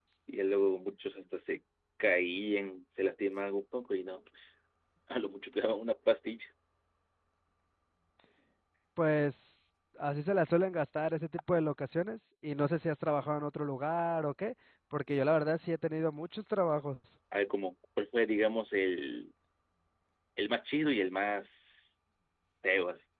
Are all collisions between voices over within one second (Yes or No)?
Yes